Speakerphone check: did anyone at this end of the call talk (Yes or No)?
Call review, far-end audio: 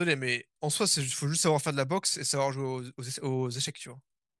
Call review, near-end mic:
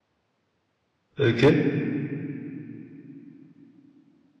Yes